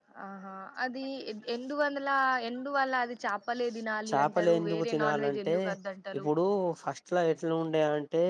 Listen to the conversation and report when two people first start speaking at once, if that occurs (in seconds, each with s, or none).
4.1 s